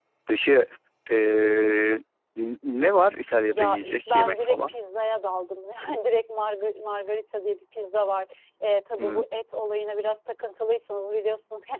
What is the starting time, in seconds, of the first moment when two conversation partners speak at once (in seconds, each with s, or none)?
3.5 s